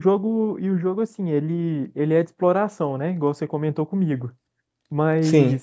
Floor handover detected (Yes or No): No